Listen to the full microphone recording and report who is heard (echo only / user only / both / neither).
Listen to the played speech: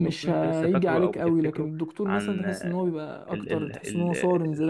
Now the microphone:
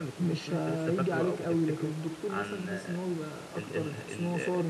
echo only